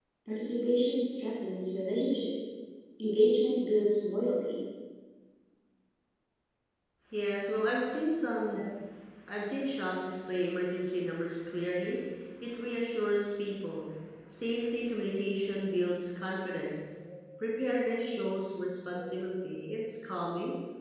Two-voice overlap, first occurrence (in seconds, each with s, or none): none